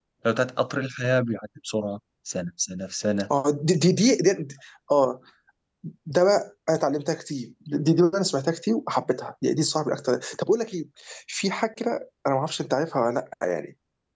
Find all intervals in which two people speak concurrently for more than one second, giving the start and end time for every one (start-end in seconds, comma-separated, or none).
none